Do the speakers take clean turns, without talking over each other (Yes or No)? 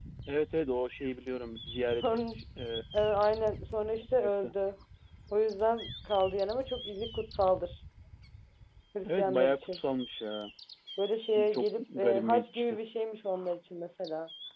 No